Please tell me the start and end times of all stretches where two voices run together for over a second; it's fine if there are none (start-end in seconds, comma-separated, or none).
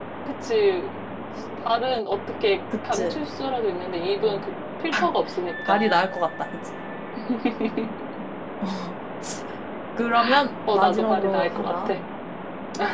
10.7-11.9